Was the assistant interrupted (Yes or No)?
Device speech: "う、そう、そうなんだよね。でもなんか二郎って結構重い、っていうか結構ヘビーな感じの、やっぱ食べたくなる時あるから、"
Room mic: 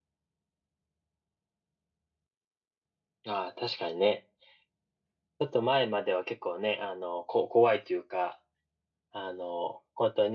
Yes